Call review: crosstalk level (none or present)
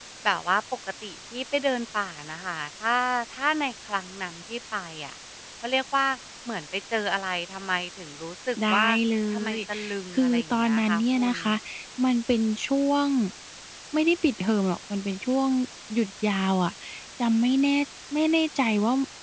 present